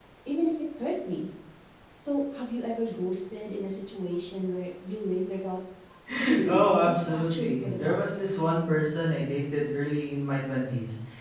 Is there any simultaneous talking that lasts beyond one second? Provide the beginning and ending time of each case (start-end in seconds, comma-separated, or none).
6.4-8.1